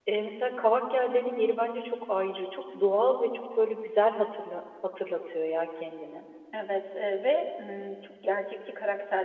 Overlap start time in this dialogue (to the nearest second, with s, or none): none